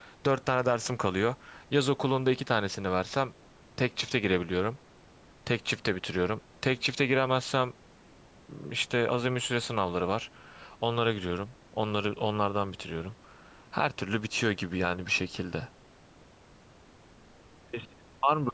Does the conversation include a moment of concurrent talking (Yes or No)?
No